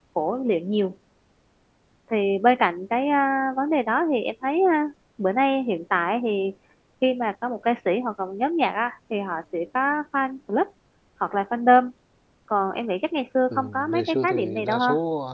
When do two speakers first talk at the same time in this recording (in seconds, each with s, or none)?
13.5 s